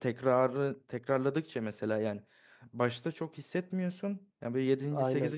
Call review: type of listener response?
listening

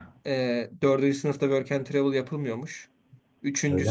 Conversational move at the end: listening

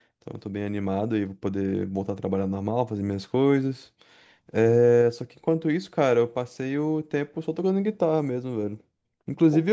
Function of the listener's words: listening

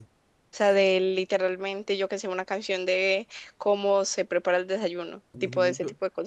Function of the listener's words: taking over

